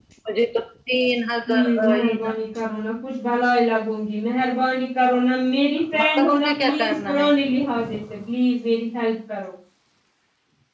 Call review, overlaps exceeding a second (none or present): present